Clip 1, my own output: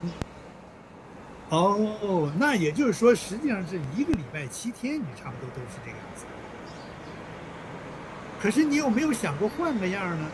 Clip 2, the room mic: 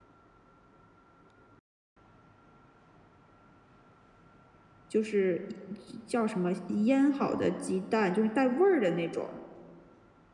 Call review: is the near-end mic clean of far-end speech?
Yes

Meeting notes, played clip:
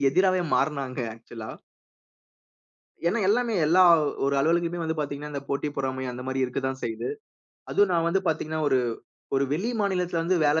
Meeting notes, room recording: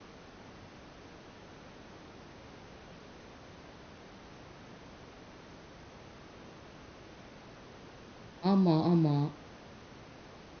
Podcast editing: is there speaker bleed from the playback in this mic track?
No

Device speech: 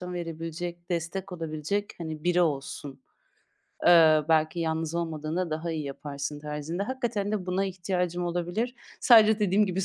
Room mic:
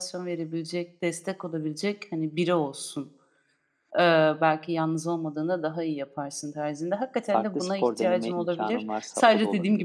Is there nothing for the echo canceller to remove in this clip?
No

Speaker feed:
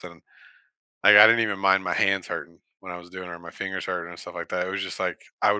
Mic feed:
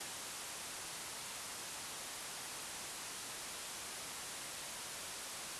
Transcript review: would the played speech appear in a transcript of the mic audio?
No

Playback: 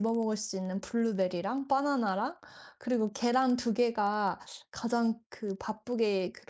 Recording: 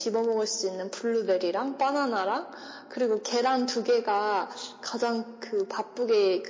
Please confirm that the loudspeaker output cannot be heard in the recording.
No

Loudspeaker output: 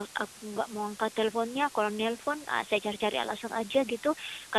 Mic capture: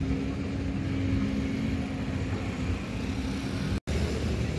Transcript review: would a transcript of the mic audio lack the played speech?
Yes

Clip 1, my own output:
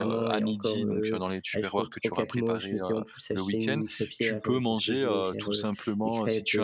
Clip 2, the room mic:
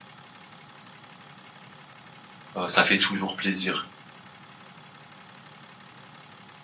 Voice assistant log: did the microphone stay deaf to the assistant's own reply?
Yes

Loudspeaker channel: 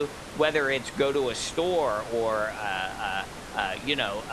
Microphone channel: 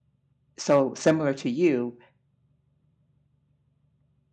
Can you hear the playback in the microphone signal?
No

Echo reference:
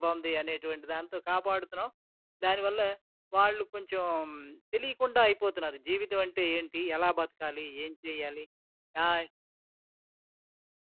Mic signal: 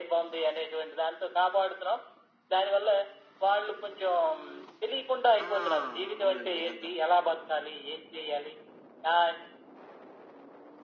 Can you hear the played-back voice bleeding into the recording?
Yes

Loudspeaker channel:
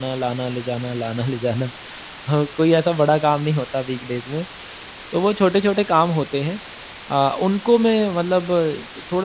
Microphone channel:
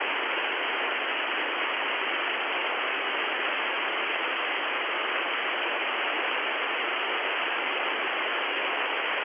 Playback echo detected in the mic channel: No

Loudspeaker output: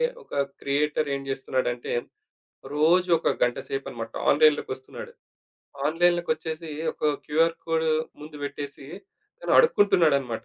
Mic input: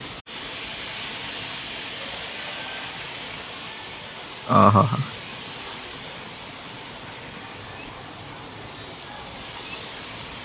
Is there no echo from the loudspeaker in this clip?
Yes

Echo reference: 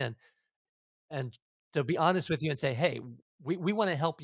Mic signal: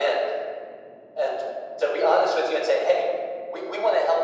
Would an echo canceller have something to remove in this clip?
Yes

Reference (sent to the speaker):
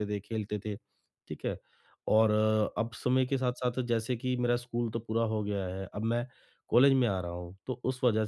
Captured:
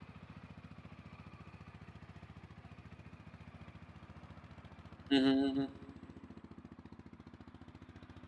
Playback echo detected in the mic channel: No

